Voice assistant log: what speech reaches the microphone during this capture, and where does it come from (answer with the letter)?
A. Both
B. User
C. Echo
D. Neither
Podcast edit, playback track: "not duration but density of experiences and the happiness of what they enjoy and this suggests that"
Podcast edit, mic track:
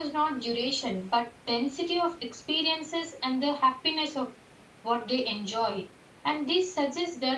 C